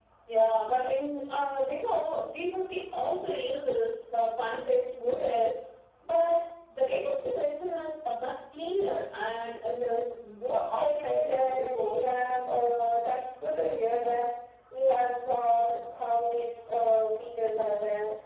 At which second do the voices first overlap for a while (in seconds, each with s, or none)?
10.4 s